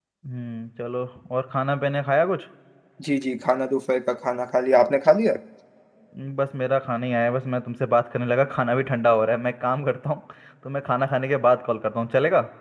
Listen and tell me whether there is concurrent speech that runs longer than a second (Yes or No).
No